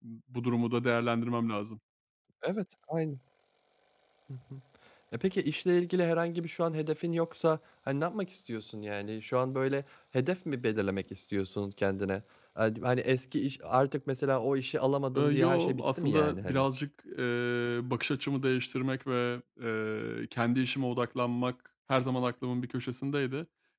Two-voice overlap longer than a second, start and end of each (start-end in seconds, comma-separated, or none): 15.2-16.7